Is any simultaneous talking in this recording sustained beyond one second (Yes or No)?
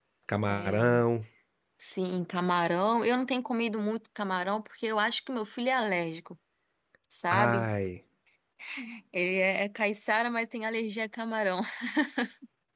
No